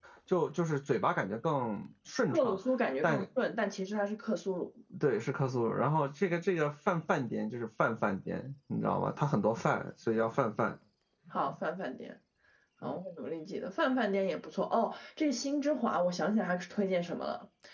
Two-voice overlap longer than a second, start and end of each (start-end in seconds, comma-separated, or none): none